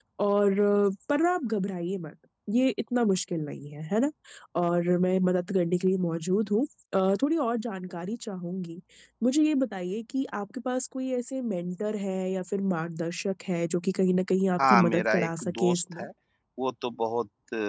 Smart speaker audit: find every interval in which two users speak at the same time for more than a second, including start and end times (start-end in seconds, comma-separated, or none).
14.6-16.0